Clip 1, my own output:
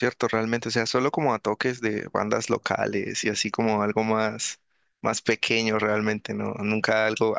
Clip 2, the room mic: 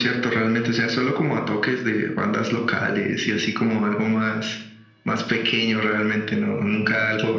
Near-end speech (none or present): none